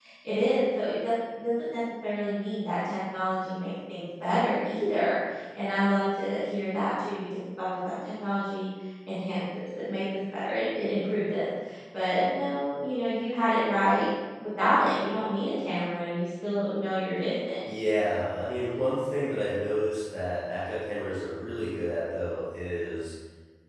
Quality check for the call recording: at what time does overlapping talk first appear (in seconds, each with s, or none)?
none